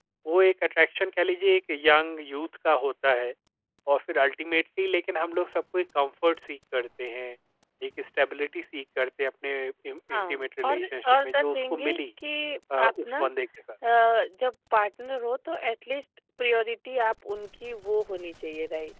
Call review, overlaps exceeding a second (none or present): present